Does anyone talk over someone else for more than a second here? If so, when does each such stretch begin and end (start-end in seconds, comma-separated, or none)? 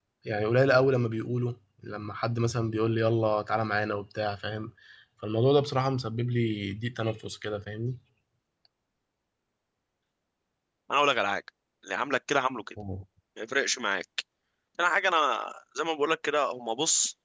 none